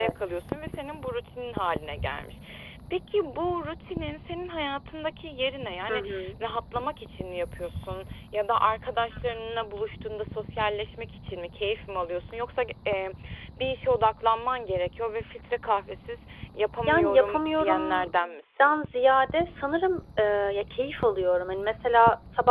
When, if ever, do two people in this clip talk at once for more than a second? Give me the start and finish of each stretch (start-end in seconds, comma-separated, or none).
16.9-18.8